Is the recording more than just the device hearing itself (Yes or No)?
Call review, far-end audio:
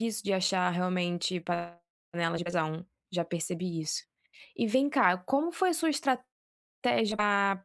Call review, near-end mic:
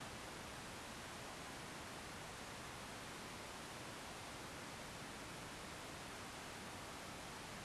No